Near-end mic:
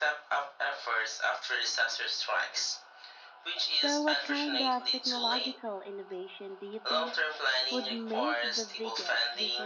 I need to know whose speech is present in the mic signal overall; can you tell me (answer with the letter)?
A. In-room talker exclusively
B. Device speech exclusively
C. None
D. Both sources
D